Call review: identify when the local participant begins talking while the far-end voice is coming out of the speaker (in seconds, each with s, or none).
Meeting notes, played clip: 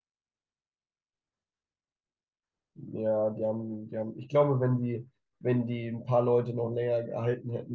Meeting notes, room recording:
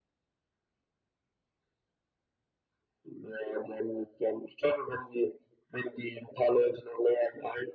none